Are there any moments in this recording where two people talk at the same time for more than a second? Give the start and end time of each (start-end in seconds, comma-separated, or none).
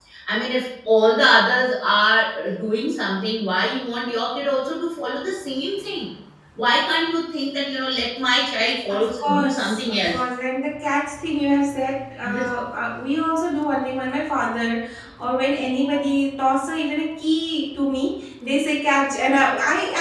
8.9-10.2